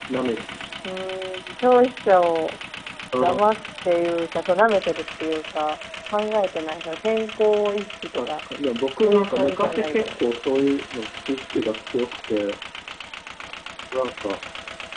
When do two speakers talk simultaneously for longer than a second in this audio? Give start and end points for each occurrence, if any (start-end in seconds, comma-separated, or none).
9.0-10.3